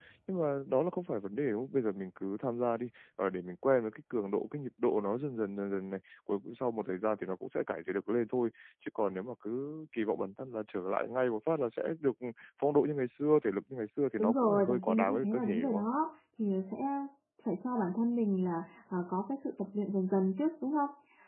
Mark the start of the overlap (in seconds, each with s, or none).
14.2 s